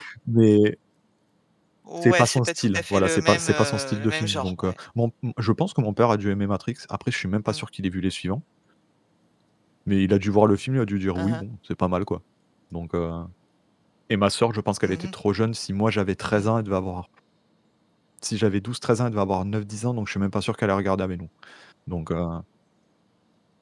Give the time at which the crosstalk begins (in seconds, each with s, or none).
2.0 s